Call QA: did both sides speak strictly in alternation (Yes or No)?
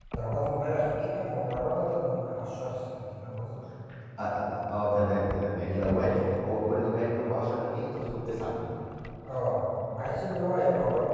Yes